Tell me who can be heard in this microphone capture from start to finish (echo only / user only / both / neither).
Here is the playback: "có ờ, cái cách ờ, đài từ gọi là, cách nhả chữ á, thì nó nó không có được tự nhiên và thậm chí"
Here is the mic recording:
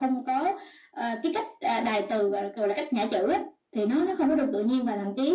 echo only